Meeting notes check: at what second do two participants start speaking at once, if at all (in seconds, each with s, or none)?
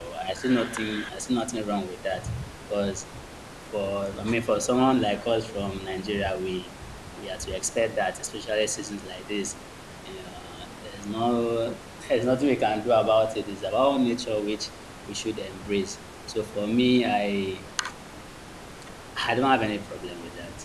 none